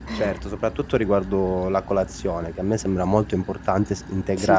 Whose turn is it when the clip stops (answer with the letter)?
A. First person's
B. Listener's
A